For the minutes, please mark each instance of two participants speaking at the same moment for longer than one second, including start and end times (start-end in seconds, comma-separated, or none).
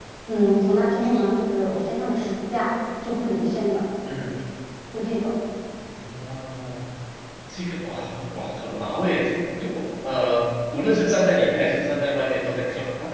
none